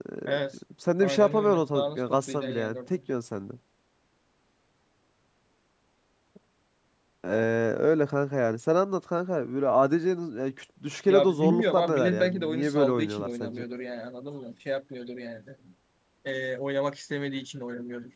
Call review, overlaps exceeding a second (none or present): present